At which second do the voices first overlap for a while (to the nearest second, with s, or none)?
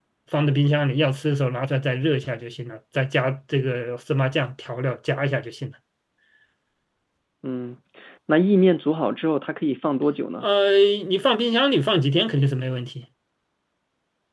none